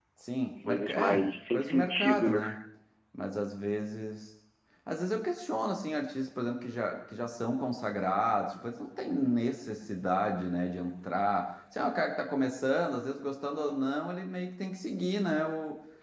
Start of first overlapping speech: 0.7 s

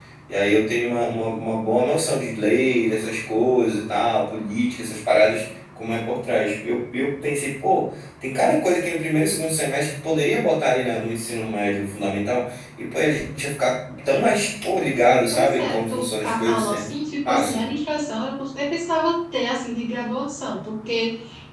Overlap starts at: 15.3 s

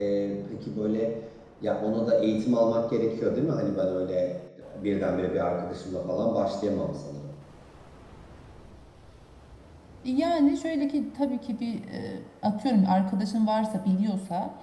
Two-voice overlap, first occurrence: none

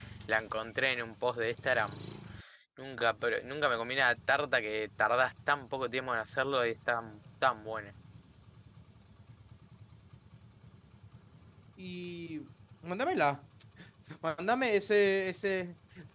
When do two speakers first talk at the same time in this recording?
none

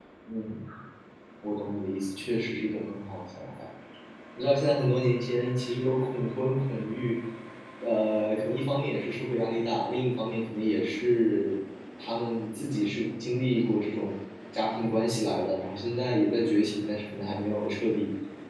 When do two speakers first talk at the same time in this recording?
none

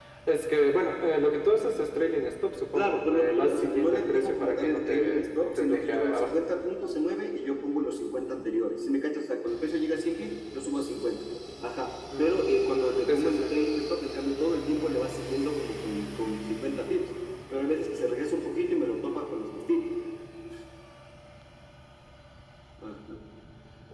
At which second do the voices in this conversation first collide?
2.7 s

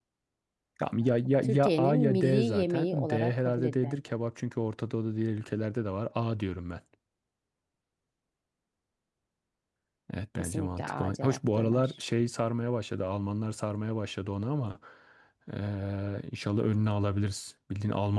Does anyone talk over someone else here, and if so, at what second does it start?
1.4 s

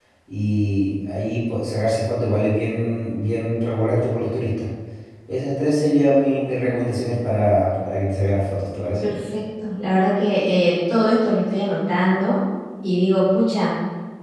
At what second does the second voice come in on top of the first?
none

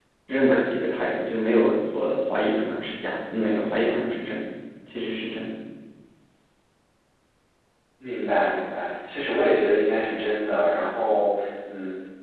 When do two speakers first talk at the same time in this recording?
none

